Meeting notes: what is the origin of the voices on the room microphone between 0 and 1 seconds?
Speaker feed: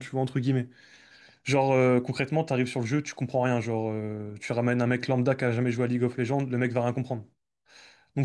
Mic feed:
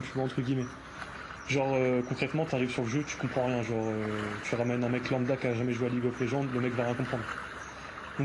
echo only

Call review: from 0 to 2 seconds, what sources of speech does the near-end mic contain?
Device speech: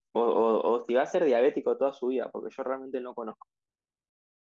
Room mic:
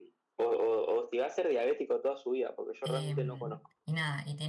echo only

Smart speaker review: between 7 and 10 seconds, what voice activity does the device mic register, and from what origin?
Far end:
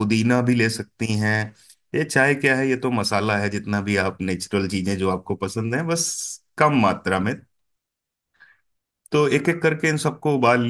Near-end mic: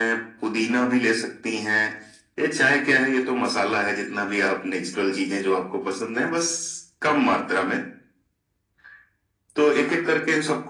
echo only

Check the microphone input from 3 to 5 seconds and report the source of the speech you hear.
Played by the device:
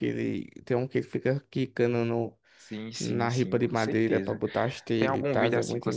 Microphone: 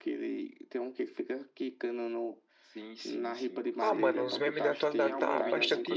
both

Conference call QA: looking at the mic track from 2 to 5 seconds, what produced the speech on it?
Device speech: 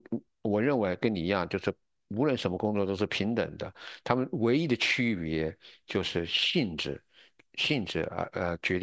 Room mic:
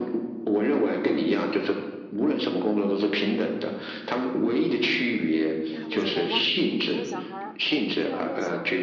echo only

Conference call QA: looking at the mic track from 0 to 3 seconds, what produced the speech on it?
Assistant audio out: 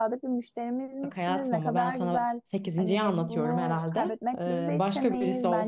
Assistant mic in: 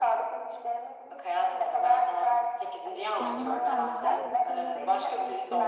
echo only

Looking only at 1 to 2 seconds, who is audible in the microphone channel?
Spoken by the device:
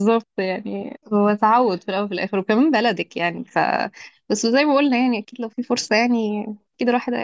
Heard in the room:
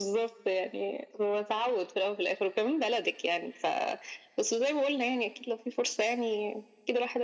echo only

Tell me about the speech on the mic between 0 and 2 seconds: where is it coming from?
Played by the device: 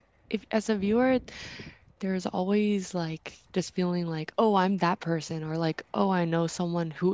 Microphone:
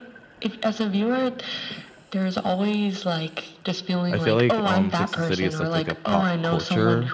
echo only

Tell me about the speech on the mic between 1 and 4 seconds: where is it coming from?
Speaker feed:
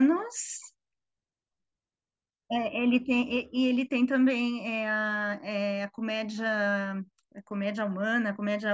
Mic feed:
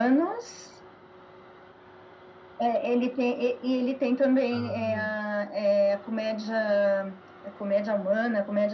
echo only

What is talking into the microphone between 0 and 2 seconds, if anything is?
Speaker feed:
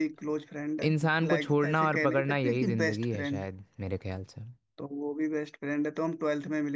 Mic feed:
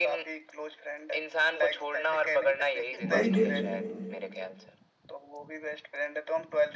echo only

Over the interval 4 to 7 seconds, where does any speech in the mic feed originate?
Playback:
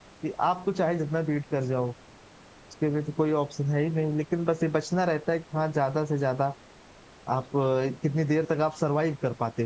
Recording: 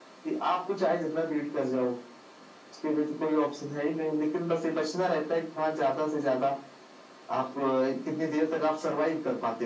echo only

